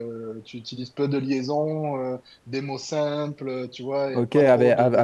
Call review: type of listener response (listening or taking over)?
taking over